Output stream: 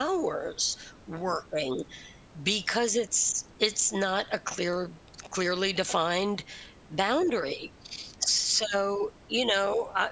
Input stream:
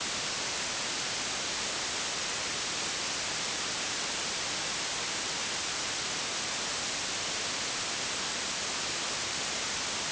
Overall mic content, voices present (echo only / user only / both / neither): neither